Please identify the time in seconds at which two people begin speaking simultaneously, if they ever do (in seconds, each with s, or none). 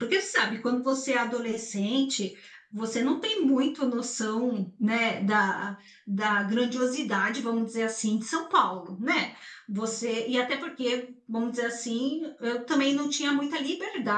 none